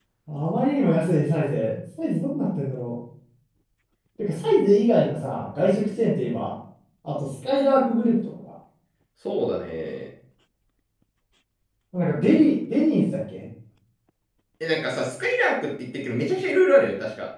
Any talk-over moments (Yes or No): No